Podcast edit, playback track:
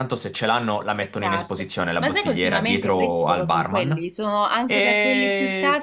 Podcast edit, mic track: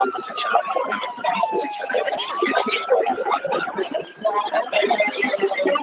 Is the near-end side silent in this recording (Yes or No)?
Yes